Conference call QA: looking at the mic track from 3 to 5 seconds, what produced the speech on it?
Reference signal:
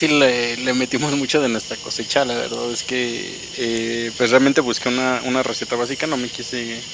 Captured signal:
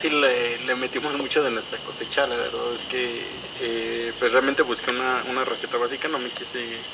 echo only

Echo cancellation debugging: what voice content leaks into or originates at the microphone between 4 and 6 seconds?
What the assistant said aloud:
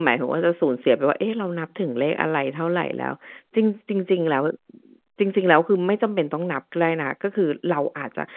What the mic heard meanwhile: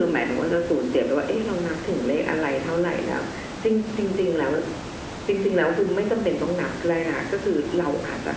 echo only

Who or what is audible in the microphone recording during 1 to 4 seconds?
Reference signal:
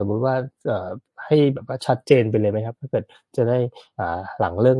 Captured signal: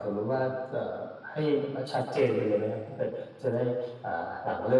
echo only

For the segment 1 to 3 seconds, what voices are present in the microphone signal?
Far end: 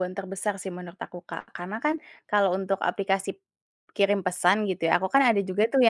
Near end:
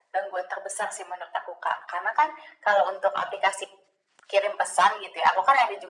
echo only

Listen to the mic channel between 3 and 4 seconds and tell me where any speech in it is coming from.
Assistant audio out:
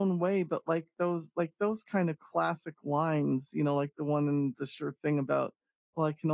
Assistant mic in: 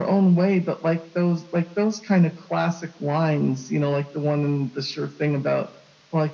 echo only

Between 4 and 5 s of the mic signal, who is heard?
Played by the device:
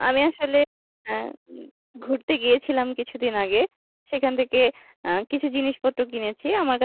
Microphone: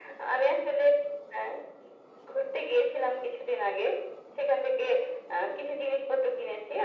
echo only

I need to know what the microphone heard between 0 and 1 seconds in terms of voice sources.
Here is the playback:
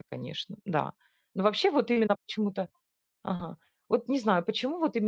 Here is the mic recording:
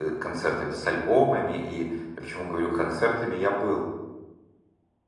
user only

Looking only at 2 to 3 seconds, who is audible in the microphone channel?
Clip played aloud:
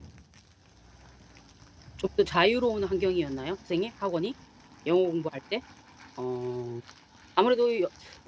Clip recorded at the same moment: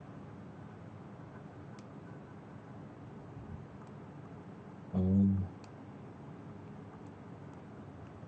neither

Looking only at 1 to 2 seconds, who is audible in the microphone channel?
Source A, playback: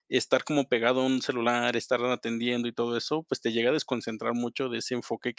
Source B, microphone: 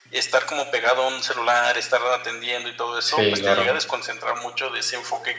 echo only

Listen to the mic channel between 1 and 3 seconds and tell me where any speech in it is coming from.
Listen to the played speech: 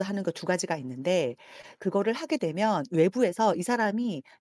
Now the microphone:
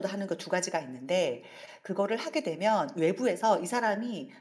echo only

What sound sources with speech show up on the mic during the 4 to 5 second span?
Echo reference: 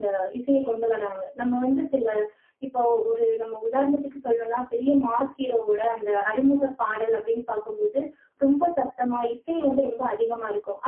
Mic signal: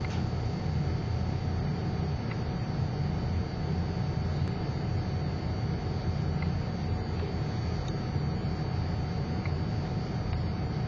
neither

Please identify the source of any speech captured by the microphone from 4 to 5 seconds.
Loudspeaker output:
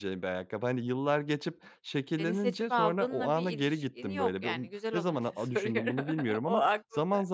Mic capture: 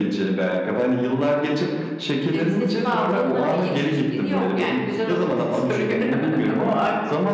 echo only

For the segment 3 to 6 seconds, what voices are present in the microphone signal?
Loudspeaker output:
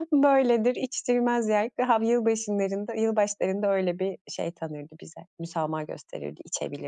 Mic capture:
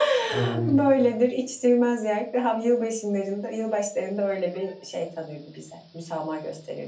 echo only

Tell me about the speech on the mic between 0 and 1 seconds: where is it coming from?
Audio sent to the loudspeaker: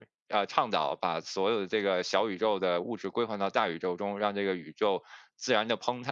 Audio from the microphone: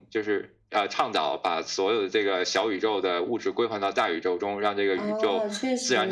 echo only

